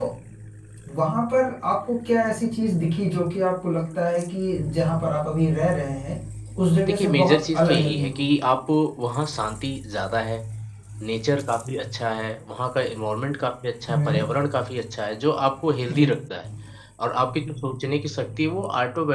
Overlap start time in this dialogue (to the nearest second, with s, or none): 7 s